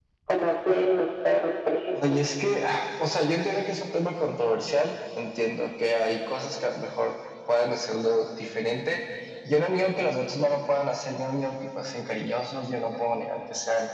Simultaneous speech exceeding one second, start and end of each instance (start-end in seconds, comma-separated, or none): none